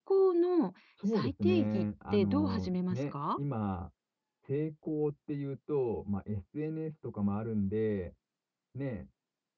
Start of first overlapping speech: 1.1 s

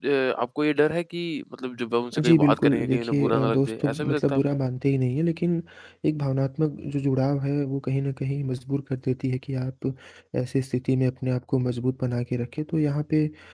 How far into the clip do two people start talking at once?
2.1 s

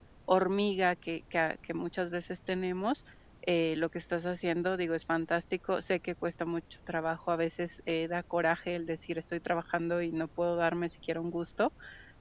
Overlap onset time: none

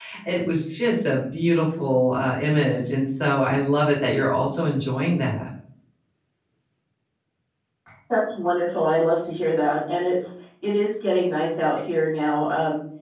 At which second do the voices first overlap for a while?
none

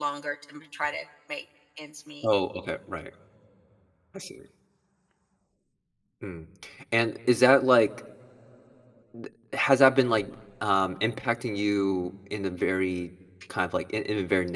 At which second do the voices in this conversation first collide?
none

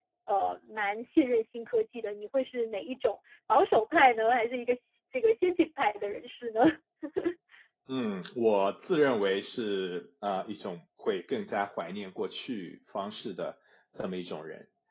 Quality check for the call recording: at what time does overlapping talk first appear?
none

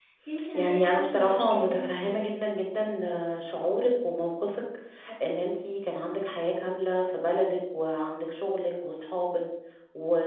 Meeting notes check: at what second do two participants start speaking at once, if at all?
0.5 s

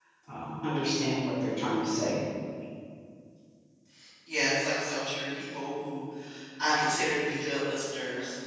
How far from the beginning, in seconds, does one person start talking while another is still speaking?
none

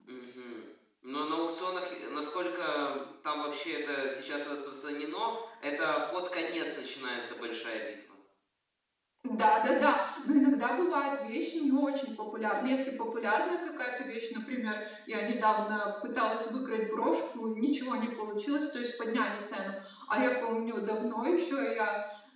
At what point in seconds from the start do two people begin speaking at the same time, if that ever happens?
none

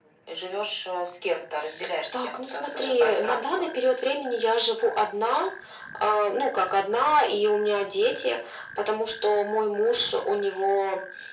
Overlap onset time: 2.1 s

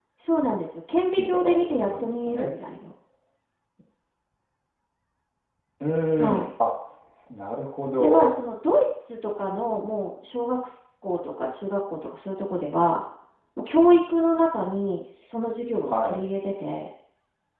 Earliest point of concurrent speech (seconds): 1.1 s

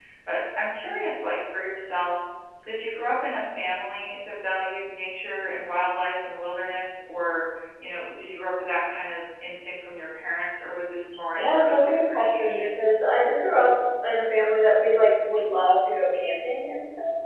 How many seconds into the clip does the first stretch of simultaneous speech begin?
11.4 s

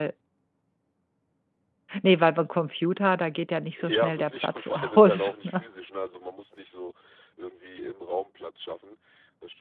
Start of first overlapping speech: 3.8 s

